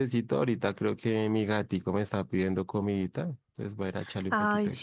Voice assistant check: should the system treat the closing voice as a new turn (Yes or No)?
Yes